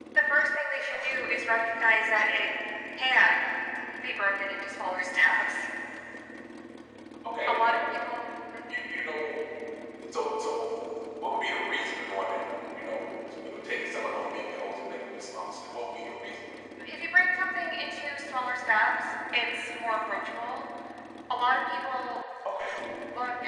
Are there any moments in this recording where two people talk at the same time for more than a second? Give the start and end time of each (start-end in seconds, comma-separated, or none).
none